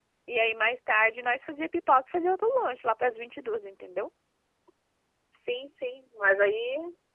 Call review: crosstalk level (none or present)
none